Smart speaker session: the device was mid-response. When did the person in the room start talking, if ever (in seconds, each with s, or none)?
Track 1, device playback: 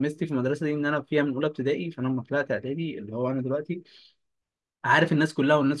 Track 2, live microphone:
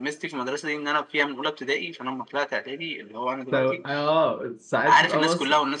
3.5 s